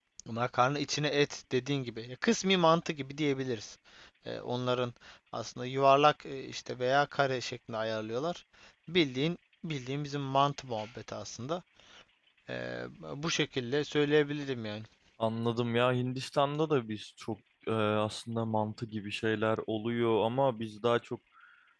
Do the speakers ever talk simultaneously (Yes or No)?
No